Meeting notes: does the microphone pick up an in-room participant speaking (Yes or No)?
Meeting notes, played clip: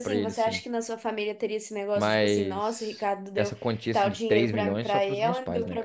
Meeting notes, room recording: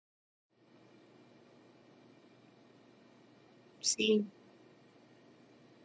Yes